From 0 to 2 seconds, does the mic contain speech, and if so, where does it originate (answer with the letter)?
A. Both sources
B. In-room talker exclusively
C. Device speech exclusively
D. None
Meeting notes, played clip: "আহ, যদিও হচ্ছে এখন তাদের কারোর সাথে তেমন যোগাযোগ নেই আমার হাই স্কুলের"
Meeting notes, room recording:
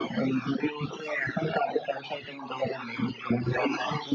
C